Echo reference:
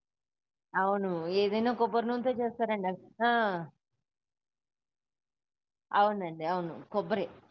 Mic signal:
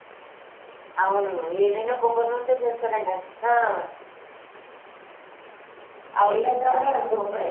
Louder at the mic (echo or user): user